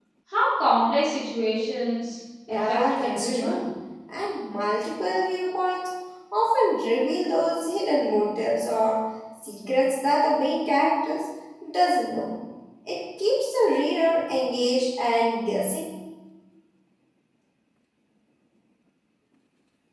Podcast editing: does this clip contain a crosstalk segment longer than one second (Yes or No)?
Yes